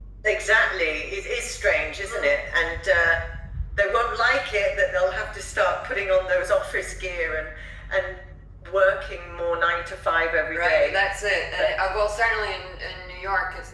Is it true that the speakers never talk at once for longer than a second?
Yes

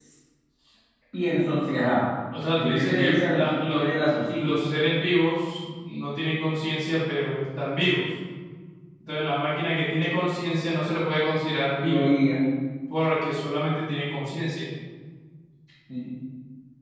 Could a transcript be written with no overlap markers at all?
No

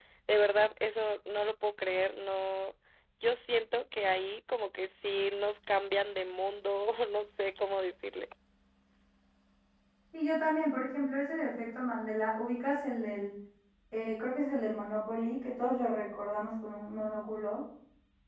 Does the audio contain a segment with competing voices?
No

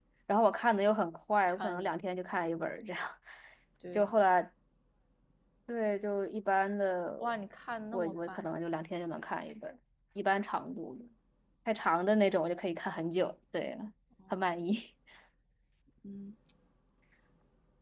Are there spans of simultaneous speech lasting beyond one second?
No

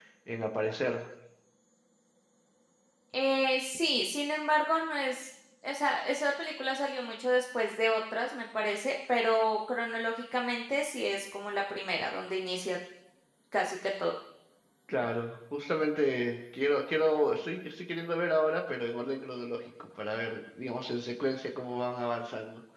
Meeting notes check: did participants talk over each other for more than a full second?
No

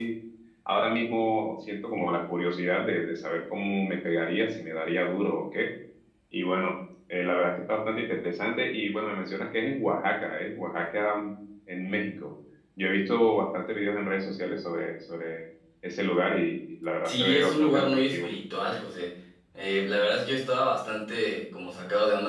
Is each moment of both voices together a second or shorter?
No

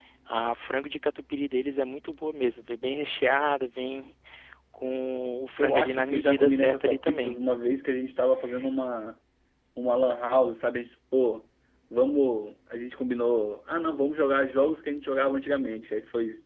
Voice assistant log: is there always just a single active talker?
No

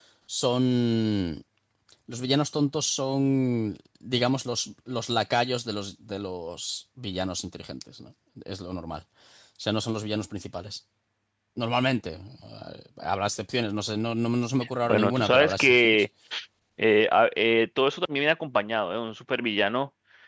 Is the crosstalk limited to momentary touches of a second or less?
No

